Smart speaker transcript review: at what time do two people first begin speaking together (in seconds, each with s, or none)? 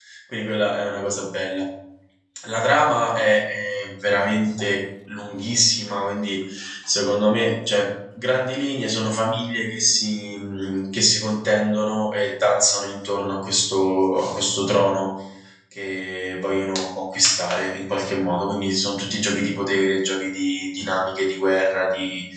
none